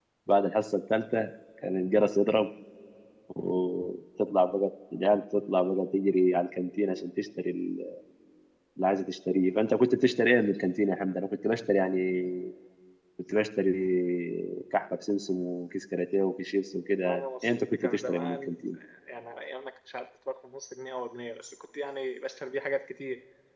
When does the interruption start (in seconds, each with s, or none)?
17.0 s